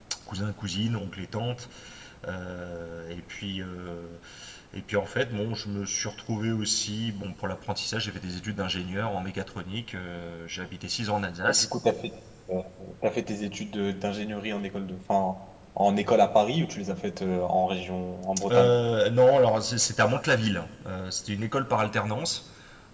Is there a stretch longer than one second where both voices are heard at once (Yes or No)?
No